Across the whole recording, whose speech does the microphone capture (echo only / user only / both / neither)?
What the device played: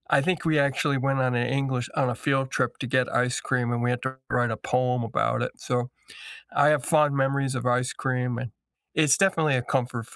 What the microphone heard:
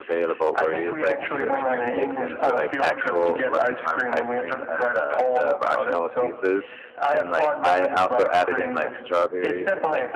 both